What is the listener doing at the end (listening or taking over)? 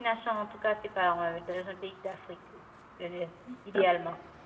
taking over